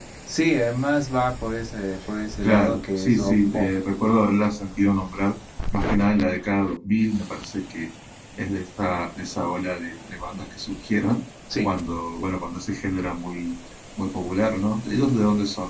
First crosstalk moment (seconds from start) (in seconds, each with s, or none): 2.4 s